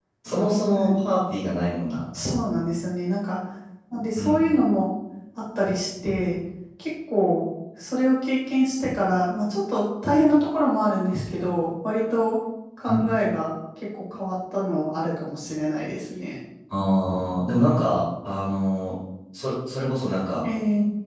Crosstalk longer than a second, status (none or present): none